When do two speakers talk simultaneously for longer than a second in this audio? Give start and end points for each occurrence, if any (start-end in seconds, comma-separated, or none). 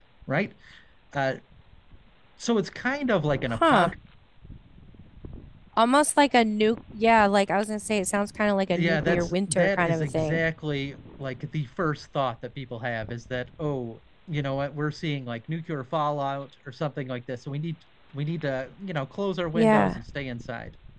8.8-10.4